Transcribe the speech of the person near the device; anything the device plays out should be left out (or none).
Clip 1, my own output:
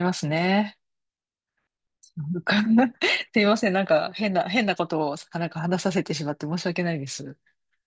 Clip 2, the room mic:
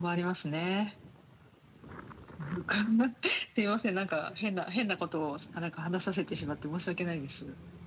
none